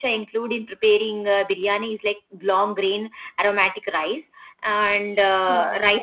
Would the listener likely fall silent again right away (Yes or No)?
Yes